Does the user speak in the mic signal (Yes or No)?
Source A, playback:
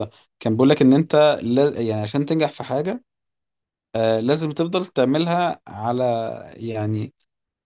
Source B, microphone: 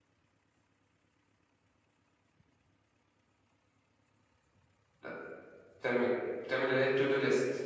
Yes